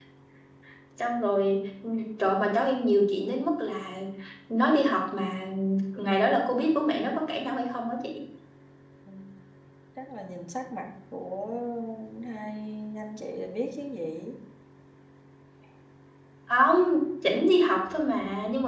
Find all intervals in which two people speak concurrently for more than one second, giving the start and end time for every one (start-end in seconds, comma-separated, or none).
none